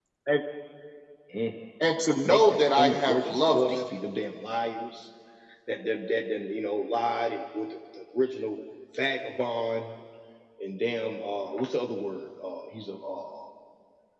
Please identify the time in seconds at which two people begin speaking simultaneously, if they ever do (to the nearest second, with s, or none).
2 s